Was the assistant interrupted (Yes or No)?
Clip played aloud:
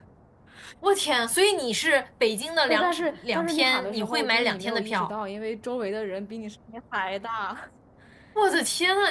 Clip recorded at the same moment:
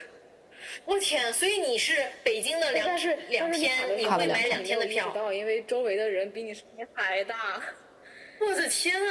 Yes